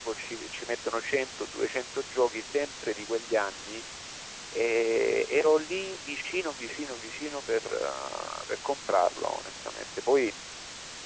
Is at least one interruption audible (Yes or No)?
No